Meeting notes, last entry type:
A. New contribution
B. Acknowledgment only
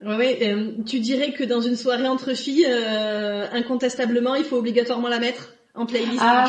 A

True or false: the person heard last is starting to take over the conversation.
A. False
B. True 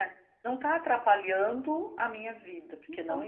A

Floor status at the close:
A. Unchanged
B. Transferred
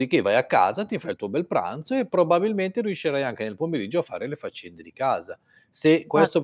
A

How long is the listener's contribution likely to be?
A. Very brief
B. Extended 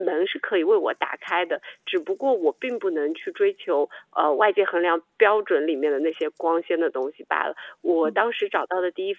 A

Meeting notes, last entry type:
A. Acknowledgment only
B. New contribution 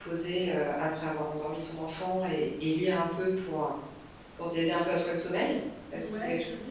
B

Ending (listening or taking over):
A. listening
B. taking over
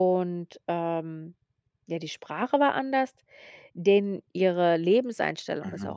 A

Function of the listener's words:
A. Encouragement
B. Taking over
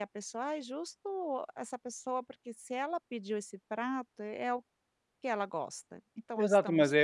B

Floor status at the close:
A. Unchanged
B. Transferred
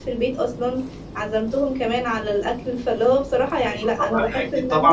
B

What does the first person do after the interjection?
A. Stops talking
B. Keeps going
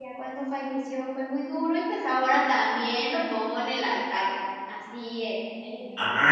A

